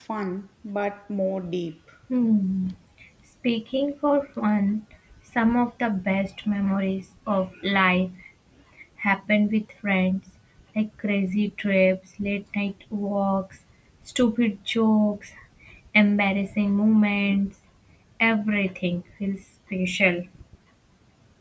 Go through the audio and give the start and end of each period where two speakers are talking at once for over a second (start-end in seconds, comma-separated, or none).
none